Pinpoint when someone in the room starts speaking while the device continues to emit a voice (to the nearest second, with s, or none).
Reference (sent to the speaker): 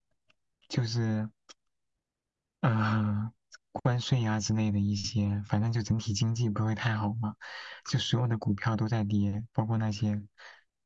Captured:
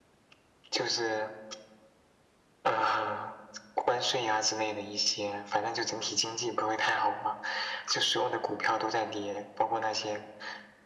none